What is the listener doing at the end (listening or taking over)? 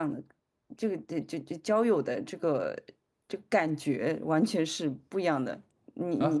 taking over